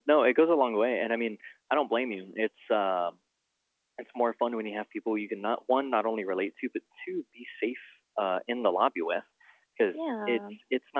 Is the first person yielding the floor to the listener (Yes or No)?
No